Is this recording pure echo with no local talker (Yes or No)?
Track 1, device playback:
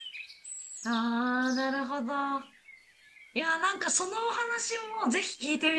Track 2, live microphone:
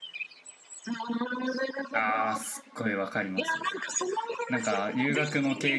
No